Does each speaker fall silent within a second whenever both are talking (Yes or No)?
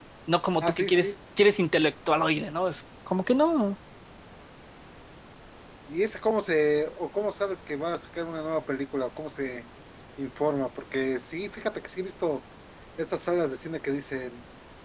Yes